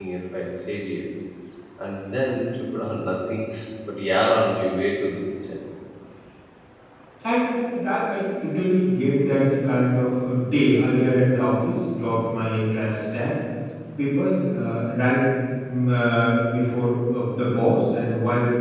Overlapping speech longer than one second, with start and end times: none

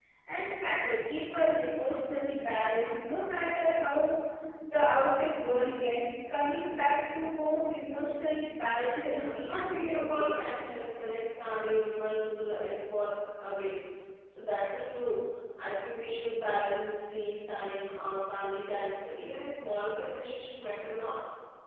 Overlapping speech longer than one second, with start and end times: 9.1-10.4

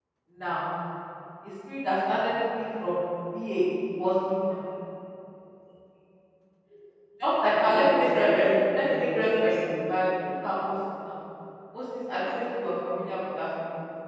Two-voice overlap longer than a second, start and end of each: 7.5-9.9

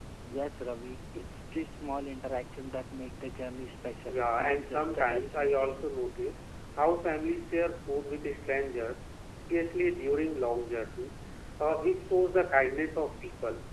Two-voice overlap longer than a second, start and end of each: 4.1-5.8

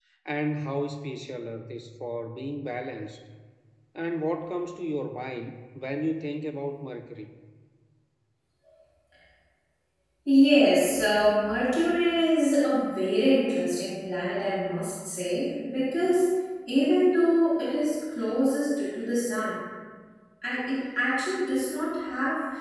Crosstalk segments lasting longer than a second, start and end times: none

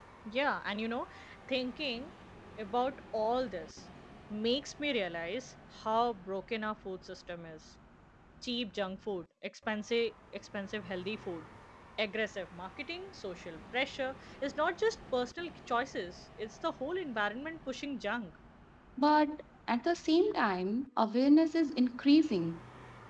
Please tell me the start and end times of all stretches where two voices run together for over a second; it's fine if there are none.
none

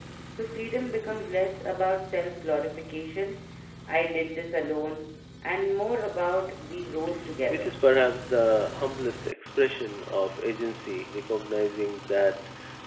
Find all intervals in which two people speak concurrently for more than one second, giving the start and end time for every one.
none

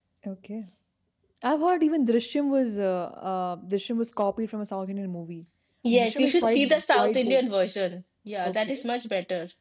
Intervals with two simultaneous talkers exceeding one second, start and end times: 5.9-7.4

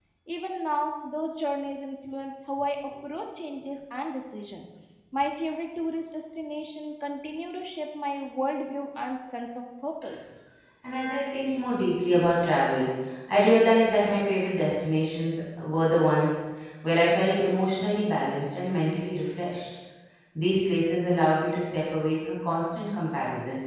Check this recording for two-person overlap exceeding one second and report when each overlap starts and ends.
none

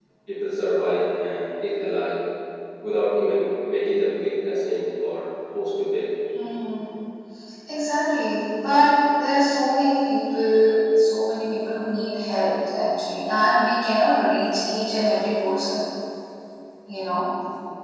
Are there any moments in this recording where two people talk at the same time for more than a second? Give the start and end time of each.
none

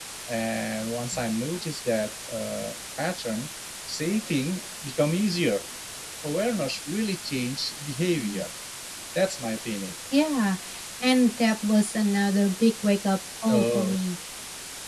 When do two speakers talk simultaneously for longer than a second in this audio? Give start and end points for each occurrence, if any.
none

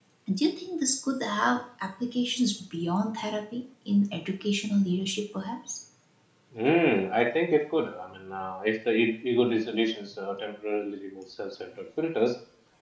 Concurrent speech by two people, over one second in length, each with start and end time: none

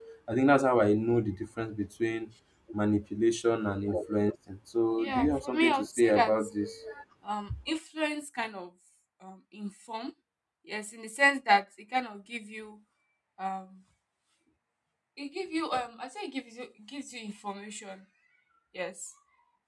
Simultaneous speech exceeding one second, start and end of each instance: 5.0-6.3

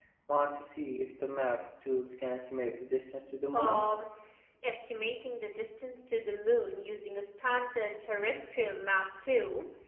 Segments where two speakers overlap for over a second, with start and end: none

